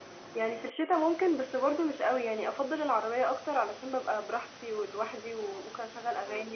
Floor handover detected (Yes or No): No